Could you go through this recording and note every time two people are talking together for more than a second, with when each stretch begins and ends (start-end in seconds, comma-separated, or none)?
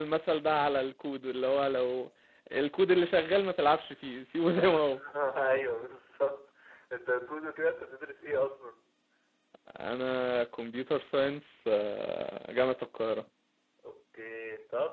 none